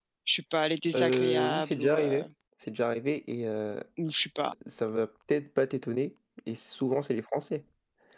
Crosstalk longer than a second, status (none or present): present